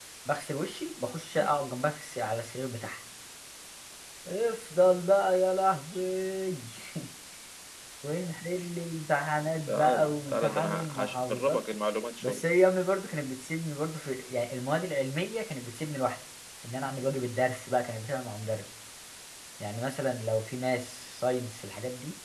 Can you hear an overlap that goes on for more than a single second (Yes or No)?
Yes